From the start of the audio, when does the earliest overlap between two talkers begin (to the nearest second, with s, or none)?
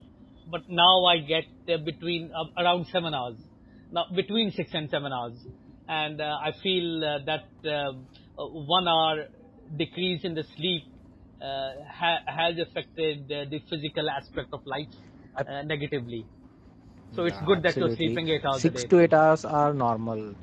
17 s